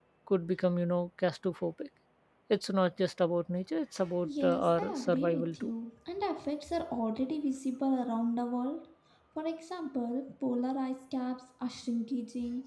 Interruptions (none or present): present